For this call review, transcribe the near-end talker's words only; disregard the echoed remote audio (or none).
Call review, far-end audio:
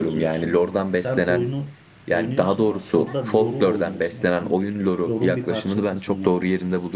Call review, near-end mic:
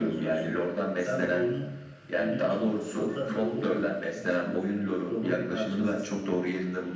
none